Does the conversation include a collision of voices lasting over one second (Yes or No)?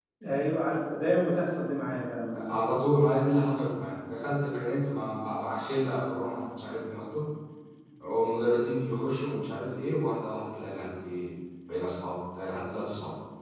No